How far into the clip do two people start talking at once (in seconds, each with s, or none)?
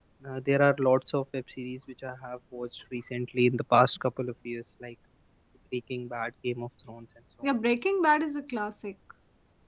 none